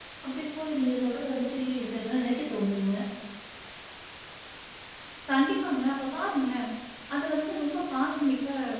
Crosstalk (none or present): none